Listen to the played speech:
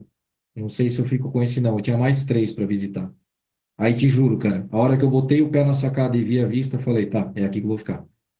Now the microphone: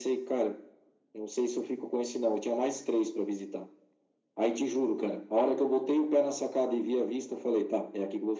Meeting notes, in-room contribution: none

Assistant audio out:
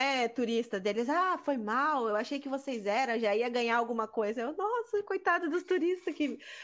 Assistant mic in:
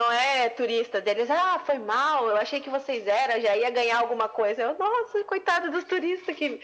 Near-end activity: none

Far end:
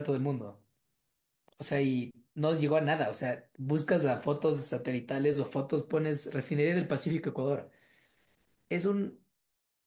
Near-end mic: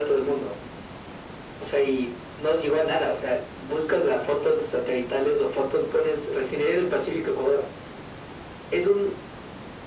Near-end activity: none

